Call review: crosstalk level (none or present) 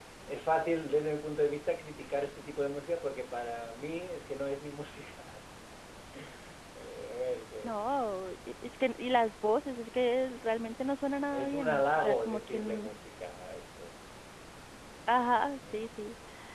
present